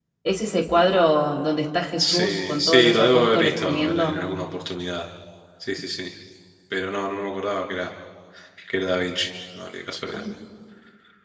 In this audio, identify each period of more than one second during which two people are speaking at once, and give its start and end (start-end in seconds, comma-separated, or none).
2.0-4.2